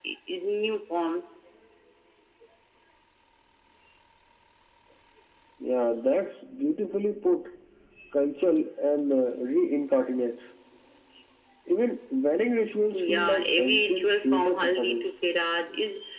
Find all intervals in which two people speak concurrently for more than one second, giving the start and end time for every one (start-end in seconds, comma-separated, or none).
12.9-15.1